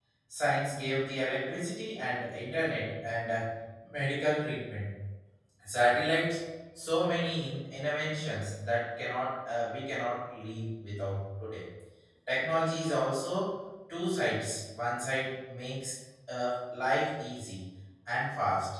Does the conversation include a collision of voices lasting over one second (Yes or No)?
No